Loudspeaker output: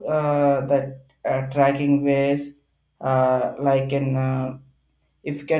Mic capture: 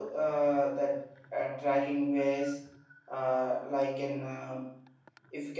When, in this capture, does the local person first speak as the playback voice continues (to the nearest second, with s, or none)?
none